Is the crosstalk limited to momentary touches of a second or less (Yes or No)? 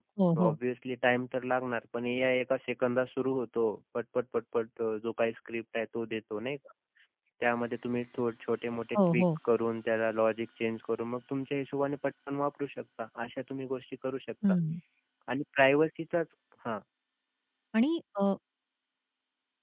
Yes